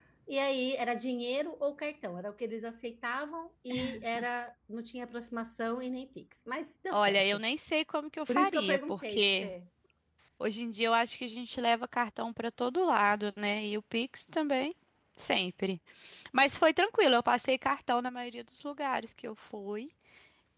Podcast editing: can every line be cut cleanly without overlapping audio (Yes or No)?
No